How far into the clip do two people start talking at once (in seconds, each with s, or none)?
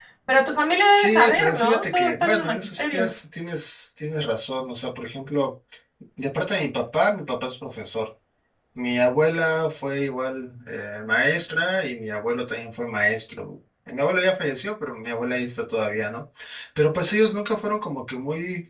0.9 s